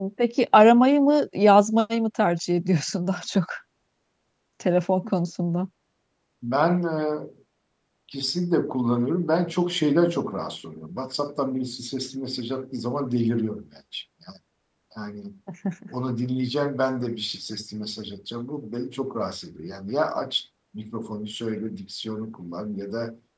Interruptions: none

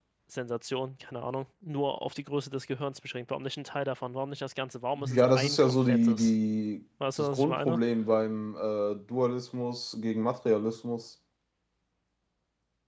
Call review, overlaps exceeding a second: present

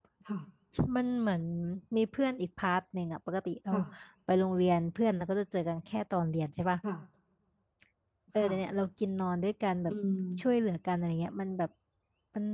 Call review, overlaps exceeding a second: none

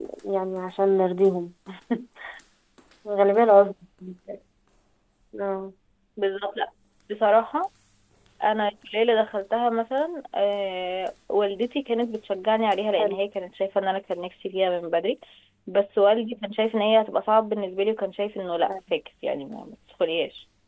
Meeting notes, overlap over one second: none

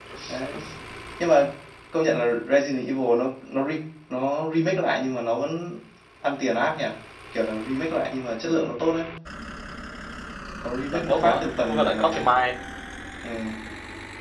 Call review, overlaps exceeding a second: present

